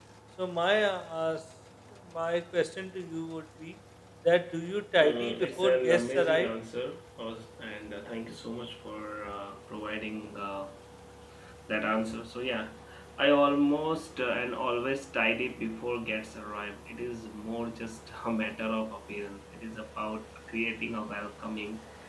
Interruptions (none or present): present